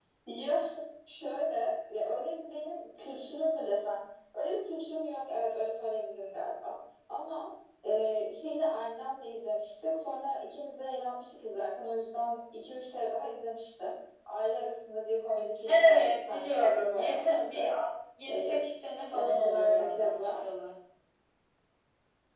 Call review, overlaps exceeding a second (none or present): present